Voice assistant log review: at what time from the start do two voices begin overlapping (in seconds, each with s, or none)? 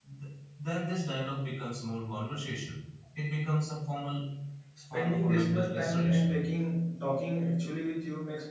4.9 s